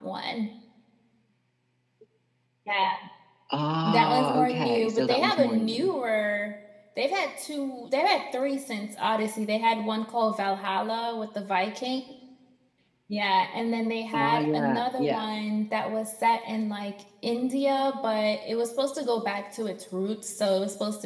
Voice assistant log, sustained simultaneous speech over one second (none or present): present